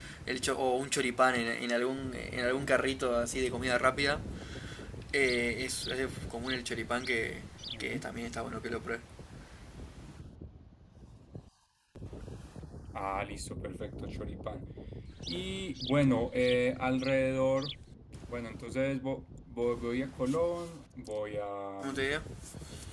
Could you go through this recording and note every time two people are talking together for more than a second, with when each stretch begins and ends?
none

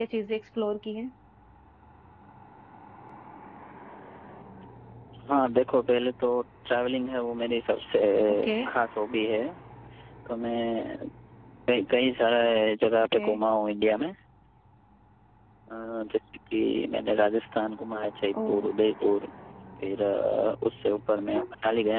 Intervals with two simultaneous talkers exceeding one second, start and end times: none

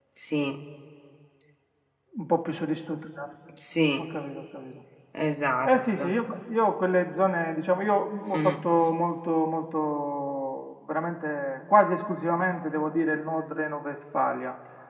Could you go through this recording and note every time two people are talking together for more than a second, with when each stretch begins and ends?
none

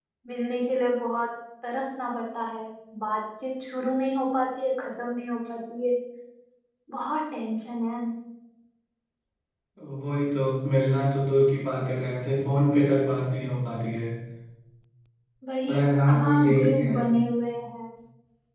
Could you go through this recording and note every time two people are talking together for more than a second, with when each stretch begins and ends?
15.7-16.9

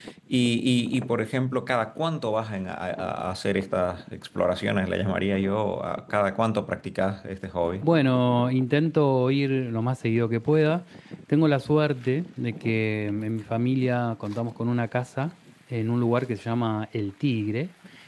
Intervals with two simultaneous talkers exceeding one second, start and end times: none

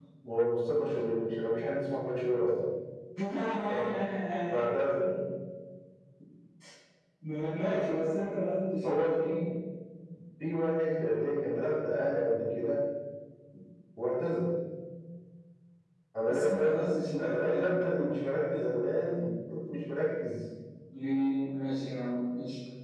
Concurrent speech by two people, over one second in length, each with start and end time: 16.3-17.8

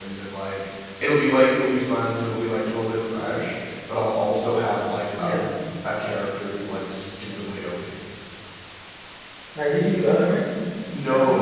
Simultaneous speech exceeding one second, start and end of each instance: none

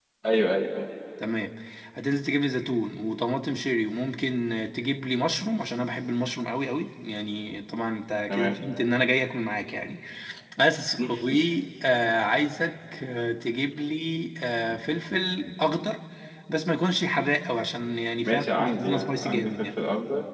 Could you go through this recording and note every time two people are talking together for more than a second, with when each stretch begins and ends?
18.2-19.6

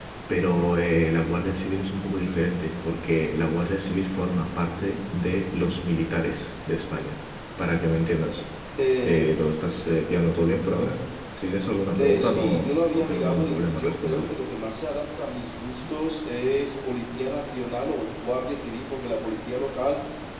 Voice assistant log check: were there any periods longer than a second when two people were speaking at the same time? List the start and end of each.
12.0-14.3

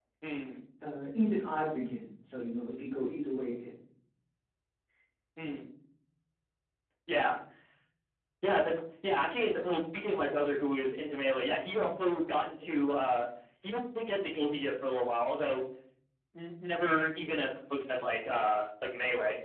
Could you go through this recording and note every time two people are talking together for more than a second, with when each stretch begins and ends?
none

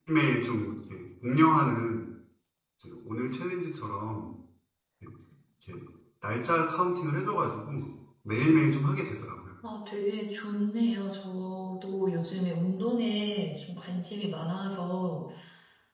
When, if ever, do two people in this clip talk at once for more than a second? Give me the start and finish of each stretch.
none

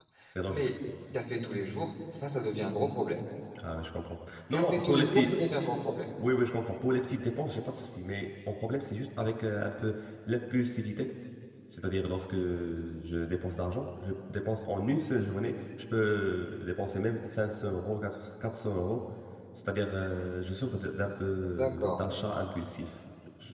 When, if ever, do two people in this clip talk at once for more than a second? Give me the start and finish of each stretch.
4.5-5.7

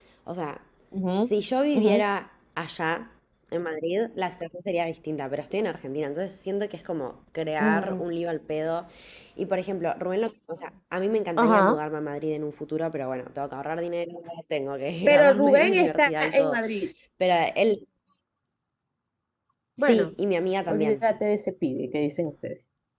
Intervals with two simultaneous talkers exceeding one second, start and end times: 15.1-16.6

